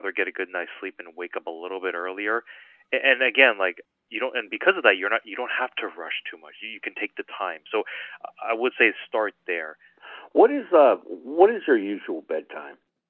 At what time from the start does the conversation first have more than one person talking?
none

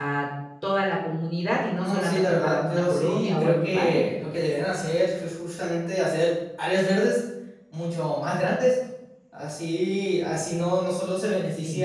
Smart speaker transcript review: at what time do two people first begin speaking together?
1.8 s

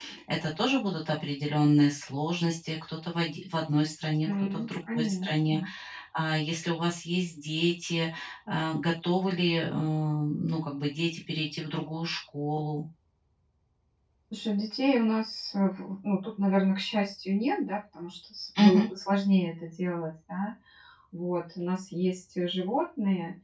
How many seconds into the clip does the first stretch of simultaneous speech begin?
4.2 s

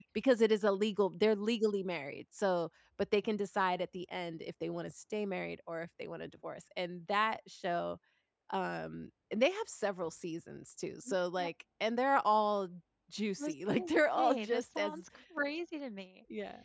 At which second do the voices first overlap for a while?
13.4 s

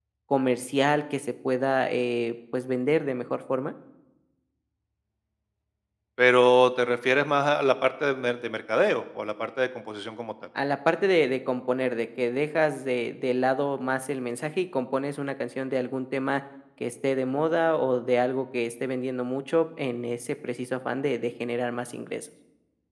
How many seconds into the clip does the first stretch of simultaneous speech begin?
none

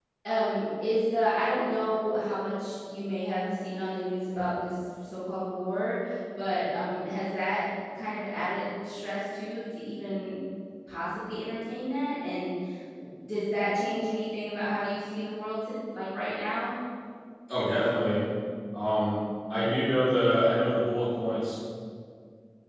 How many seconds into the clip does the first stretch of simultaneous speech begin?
none

